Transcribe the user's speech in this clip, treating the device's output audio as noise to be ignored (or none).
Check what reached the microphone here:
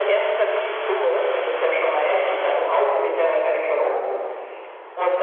none